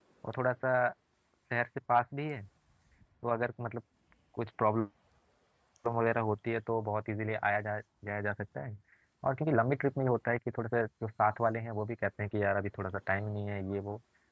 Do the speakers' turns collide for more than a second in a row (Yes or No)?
No